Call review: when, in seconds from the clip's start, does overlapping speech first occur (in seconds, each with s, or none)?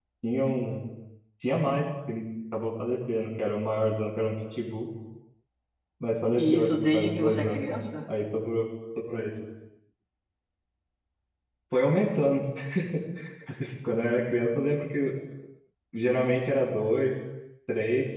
6.4 s